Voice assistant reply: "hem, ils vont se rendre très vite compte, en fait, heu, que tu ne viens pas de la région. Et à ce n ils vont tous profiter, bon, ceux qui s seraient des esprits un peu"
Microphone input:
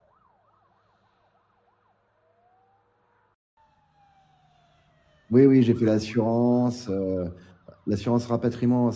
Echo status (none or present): none